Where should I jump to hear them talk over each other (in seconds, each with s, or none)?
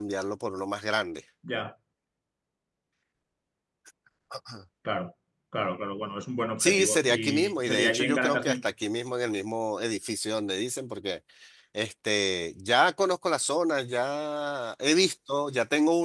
6.6 s